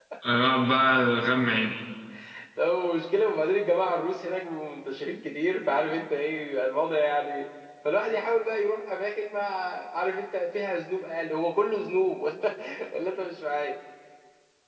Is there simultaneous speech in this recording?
No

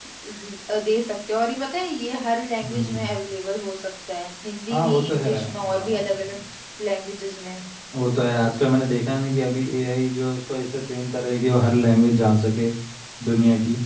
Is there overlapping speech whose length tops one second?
Yes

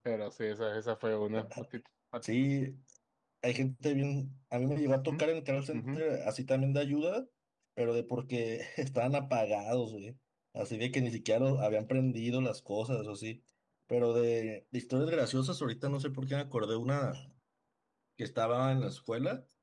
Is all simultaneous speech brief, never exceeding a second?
Yes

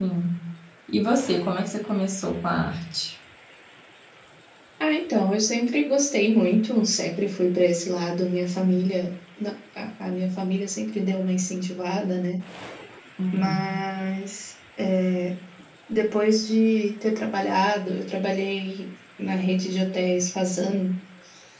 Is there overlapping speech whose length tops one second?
No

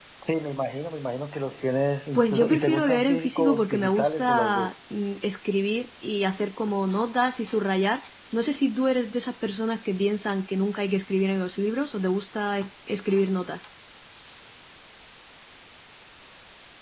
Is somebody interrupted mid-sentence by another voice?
Yes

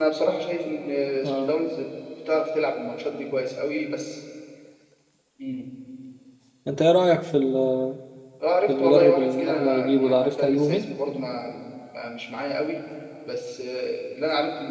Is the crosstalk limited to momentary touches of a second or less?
No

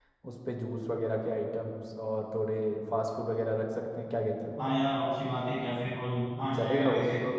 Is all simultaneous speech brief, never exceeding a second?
Yes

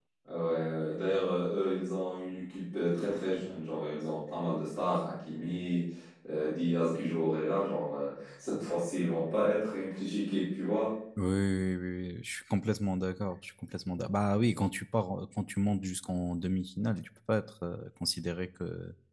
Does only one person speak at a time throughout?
Yes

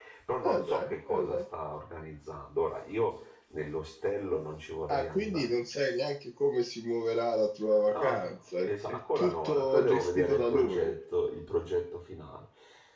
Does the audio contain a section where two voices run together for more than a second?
Yes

